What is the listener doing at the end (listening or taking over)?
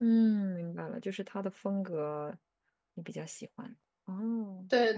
taking over